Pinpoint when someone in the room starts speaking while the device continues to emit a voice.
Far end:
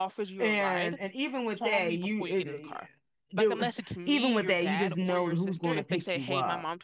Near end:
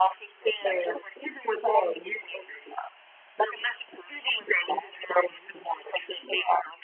none

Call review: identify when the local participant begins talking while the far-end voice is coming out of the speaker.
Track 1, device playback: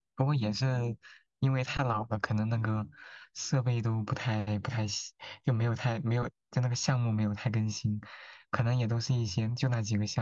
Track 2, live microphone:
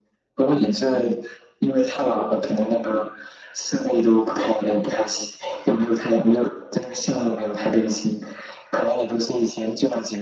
none

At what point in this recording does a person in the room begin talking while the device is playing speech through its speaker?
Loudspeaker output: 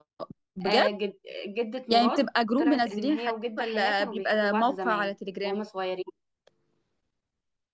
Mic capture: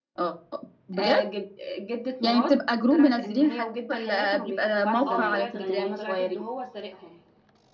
5.1 s

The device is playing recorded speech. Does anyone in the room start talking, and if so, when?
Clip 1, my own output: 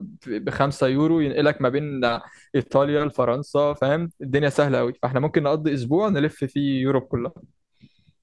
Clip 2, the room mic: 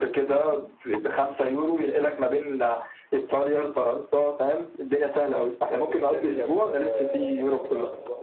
5.7 s

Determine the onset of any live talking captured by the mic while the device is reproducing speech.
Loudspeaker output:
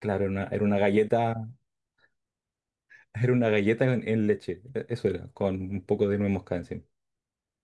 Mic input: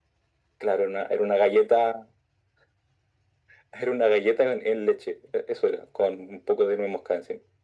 none

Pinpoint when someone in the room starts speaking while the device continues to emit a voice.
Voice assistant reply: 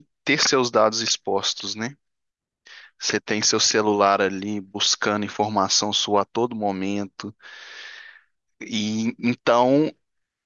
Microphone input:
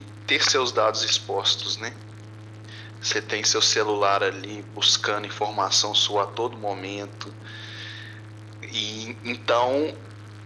none

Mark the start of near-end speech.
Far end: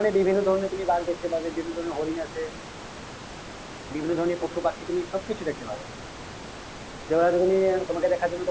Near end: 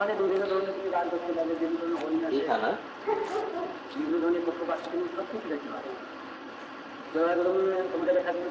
2.3 s

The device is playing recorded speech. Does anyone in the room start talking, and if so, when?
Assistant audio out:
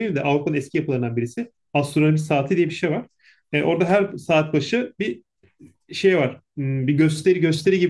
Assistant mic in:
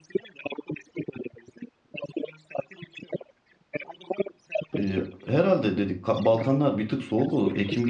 4.8 s

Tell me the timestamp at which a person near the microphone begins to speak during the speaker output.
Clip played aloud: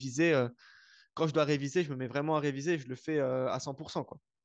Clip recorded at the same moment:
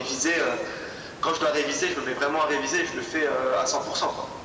none

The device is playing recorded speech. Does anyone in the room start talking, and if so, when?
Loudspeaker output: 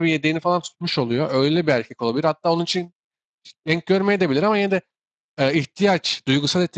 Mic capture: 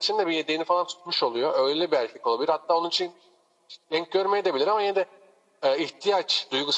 none

